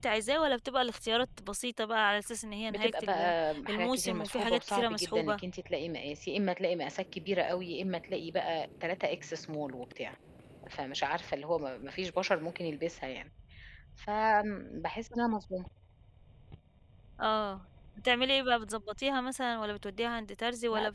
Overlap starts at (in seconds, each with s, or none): 2.7 s